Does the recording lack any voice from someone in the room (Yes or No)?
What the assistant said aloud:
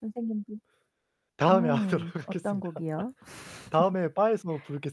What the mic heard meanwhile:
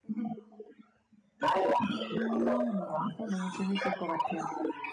No